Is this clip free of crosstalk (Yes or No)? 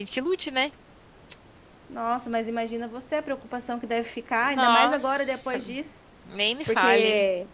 No